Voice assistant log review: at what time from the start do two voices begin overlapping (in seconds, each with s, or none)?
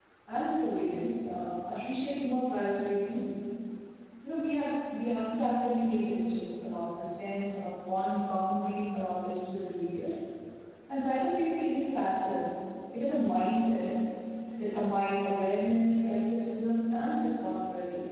none